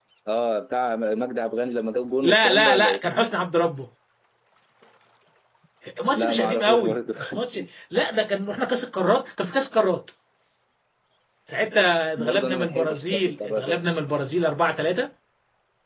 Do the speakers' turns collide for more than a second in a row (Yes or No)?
Yes